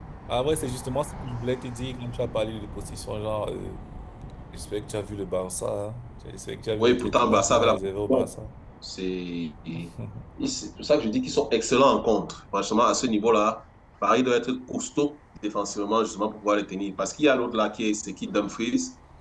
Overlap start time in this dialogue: 6.8 s

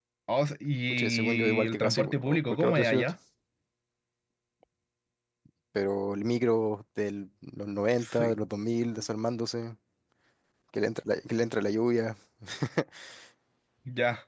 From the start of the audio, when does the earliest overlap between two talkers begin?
0.9 s

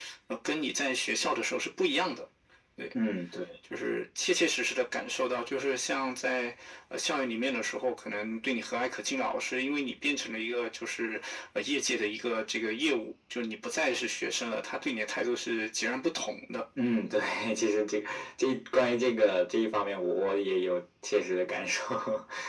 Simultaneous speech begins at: none

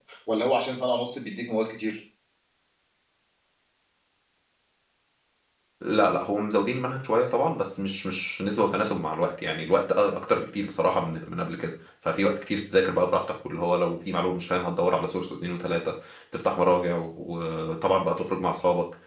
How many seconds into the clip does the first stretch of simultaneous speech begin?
none

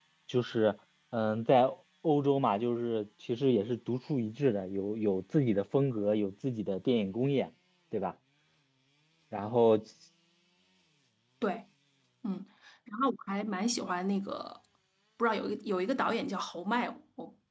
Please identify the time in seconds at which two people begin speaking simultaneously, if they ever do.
none

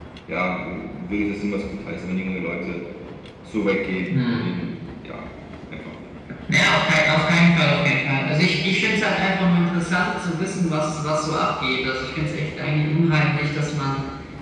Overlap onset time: none

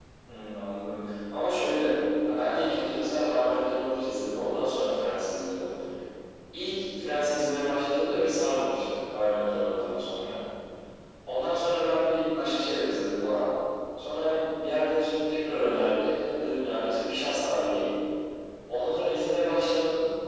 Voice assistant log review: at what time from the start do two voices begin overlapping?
none

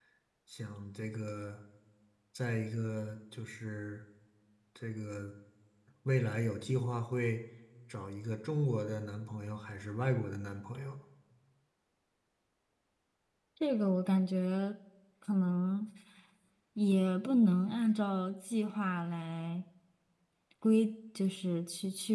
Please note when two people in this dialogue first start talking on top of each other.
none

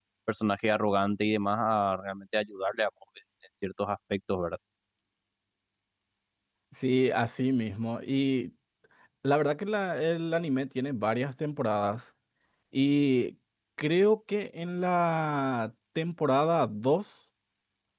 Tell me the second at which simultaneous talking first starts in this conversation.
none

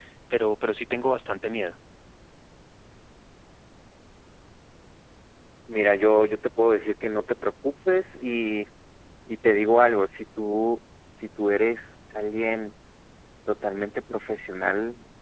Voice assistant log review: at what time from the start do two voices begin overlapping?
none

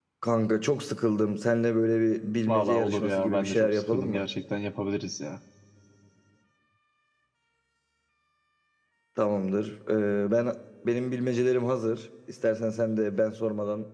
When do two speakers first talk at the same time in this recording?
2.5 s

